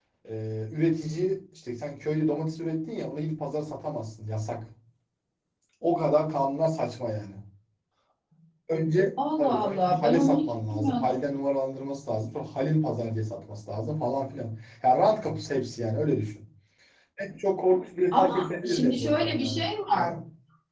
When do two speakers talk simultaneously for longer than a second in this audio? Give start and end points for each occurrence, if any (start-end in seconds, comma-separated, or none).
9.4-11.1, 18.1-19.6